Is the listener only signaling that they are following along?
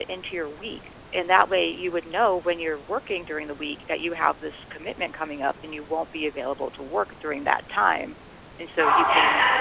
No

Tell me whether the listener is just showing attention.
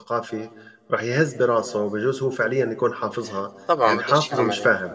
No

